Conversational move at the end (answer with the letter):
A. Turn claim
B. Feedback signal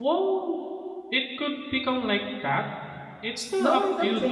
A